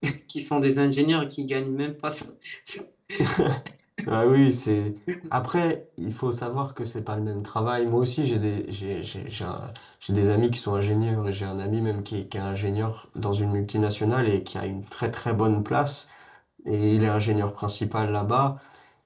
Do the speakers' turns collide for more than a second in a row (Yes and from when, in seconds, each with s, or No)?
No